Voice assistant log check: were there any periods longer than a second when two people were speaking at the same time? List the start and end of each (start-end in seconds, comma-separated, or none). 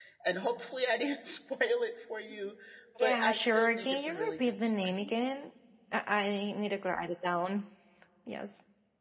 3.0-5.1